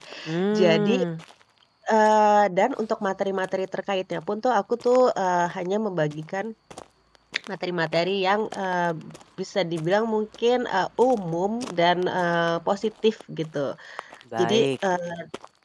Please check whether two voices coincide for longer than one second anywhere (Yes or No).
No